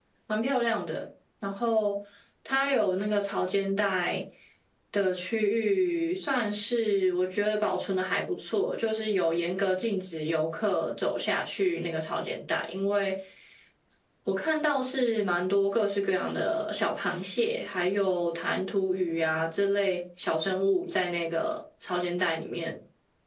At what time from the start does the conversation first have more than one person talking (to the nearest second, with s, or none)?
none